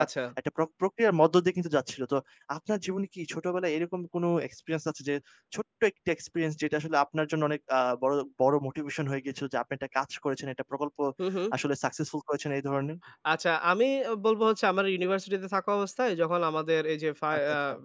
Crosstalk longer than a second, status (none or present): none